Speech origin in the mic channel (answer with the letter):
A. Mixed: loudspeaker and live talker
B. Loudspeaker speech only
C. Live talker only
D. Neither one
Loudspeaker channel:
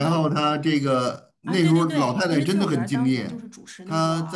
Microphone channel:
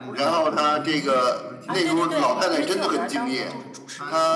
A